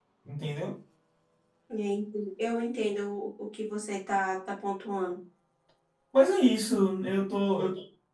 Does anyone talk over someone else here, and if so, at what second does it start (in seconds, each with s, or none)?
none